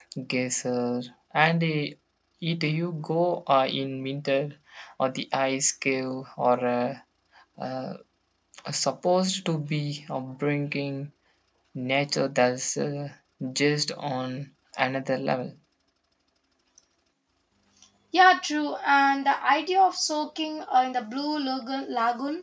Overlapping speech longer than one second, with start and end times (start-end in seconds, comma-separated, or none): none